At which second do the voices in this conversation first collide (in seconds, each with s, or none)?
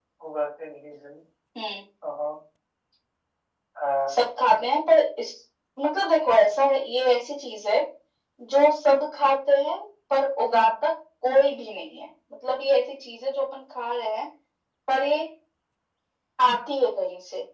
none